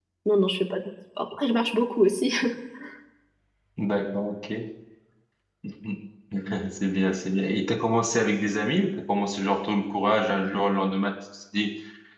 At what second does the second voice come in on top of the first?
none

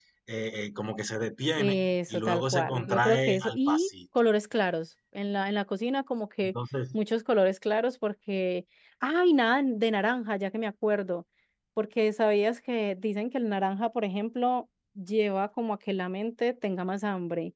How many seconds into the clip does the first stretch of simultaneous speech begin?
1.6 s

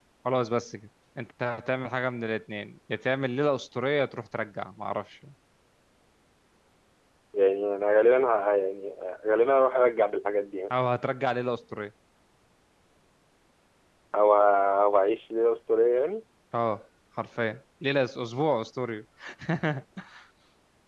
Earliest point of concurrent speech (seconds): none

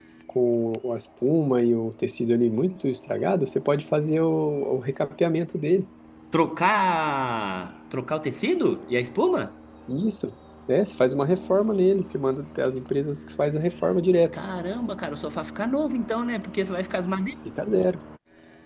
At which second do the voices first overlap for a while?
none

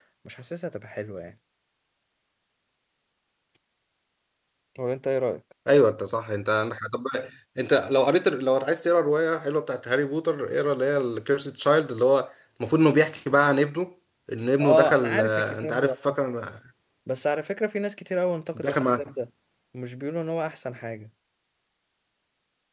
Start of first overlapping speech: 14.6 s

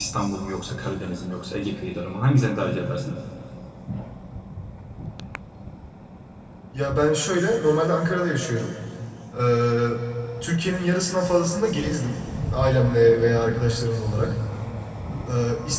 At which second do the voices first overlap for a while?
none

